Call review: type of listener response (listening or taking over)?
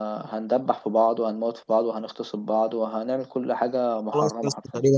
taking over